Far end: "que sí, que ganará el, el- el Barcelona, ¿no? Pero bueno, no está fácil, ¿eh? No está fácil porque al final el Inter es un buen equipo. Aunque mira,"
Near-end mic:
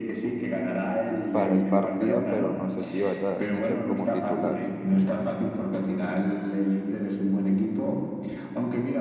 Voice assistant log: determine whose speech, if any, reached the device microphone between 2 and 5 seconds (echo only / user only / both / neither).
both